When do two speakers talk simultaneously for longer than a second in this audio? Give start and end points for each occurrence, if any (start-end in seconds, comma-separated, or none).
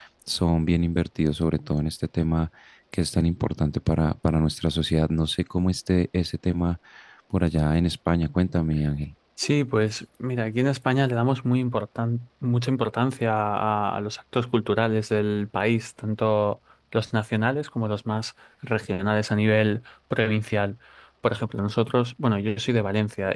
none